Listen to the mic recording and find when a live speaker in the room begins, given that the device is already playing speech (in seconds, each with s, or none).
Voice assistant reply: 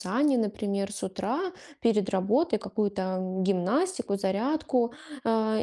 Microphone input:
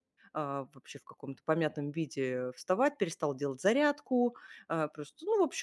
0.3 s